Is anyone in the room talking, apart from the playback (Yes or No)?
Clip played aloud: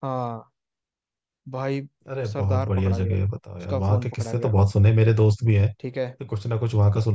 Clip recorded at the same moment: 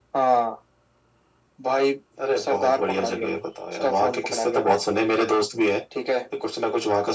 No